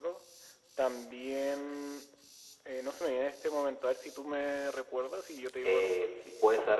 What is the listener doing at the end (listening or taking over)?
taking over